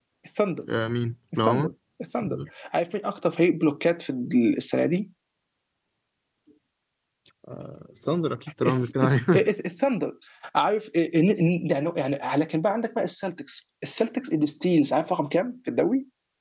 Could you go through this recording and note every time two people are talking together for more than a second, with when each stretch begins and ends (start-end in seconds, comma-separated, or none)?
none